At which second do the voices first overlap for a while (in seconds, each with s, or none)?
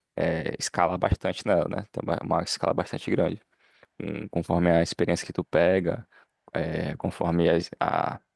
none